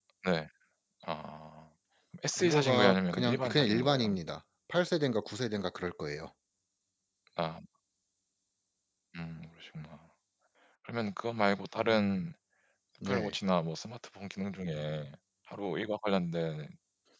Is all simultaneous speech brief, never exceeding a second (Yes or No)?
No